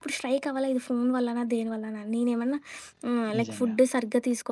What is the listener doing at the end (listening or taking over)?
listening